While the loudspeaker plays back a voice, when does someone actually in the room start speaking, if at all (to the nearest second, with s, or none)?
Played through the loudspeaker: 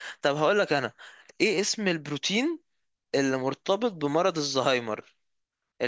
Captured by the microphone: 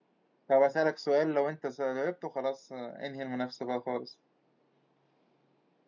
0 s